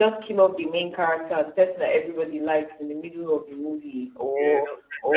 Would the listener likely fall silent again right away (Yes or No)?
No